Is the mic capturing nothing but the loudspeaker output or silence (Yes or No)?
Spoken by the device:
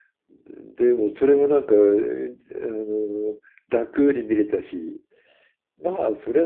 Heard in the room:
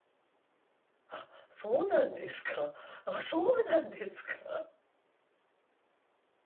No